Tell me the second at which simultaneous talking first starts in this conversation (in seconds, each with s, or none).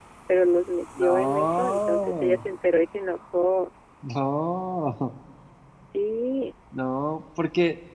1.0 s